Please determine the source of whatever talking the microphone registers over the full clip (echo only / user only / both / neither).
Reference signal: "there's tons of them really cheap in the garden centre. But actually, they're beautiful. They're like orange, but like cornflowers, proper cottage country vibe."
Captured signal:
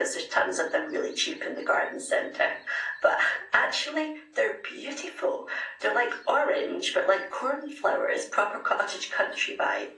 echo only